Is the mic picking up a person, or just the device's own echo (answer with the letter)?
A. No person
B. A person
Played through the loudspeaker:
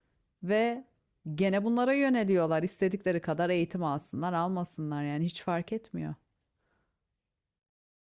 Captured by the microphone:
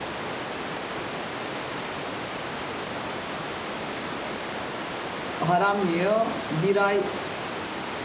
B